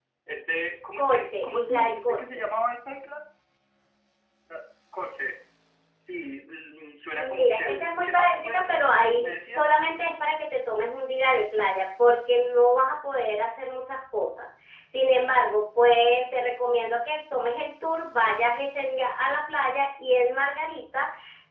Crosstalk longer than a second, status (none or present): present